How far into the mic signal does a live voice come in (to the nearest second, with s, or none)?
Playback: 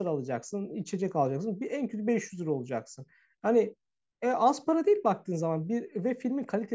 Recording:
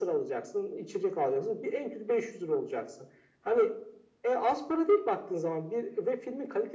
none